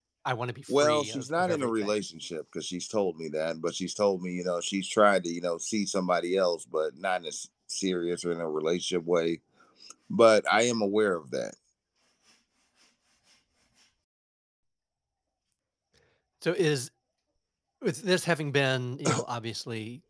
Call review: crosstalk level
present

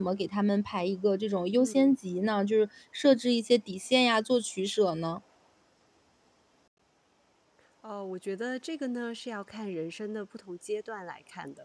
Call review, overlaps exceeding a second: none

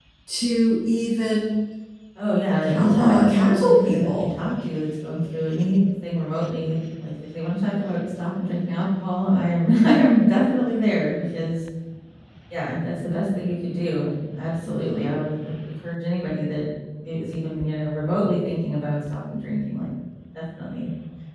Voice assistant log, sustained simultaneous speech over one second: present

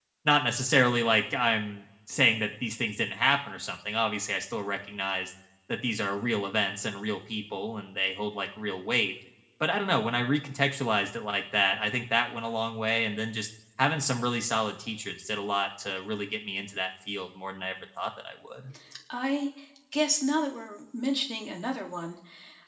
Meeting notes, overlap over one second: none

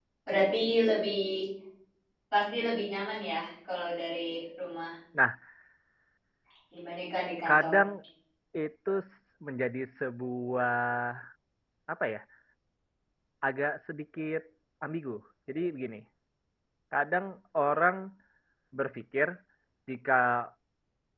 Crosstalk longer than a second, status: none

